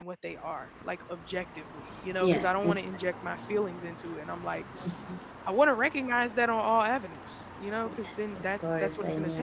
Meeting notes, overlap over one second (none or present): present